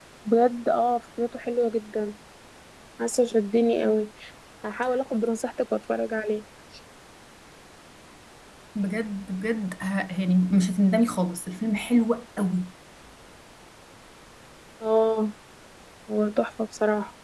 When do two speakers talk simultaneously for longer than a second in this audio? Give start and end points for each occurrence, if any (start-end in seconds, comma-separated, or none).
none